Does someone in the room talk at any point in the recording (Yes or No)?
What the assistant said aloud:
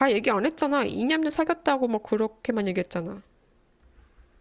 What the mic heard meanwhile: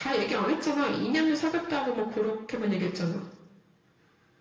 No